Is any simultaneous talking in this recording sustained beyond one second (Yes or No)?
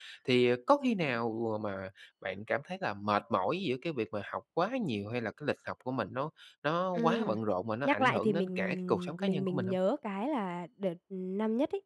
Yes